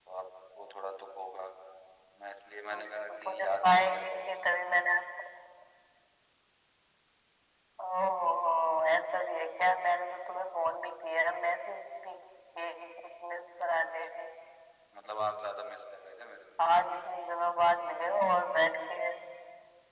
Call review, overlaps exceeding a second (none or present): present